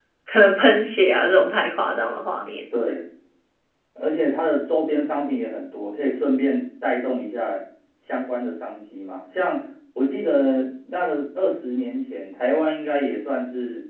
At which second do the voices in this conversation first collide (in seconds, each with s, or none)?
none